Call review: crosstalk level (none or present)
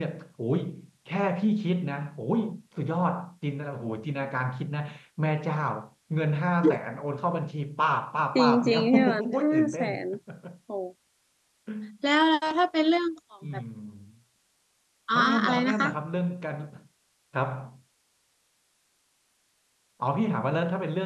present